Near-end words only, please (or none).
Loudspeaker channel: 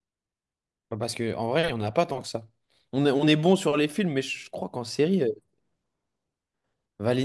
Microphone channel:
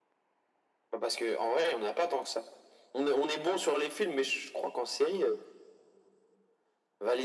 none